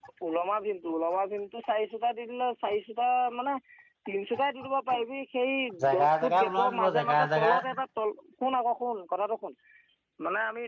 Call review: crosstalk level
present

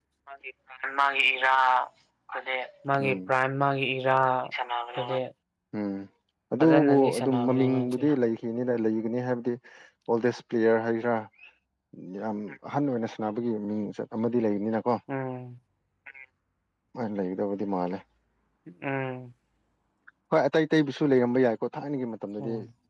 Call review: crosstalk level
present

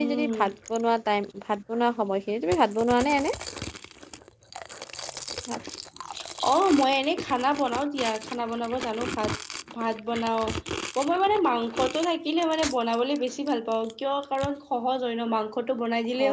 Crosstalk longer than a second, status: none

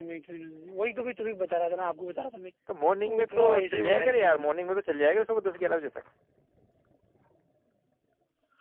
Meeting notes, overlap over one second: present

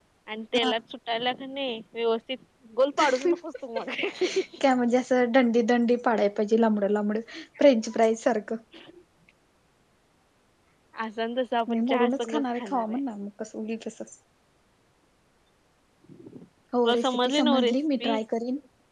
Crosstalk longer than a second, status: present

